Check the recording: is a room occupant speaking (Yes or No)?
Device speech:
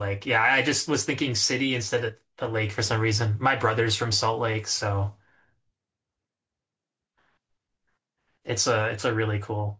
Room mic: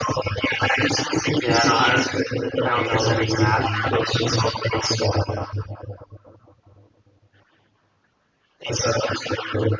Yes